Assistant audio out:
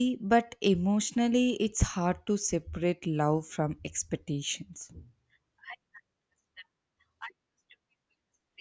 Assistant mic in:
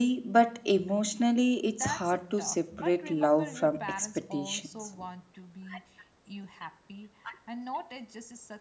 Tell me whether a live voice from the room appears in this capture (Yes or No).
Yes